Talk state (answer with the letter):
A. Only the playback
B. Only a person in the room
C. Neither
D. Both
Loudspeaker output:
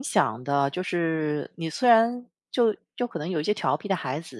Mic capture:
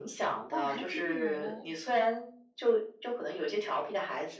D